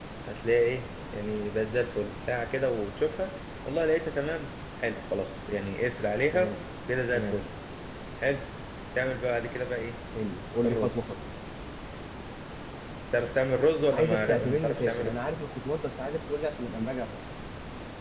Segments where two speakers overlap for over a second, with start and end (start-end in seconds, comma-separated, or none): 13.9-15.2